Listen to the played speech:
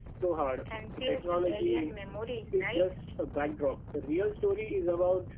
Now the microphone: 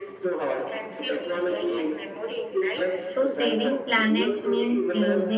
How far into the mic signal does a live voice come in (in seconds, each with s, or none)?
3.1 s